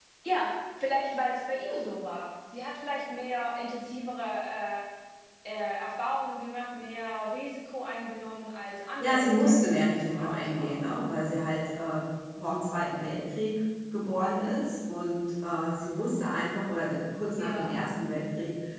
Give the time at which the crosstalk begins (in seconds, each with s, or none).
9.0 s